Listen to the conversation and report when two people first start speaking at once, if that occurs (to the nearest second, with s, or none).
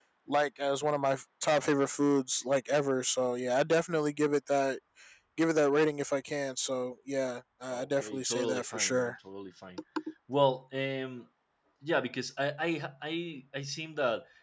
8 s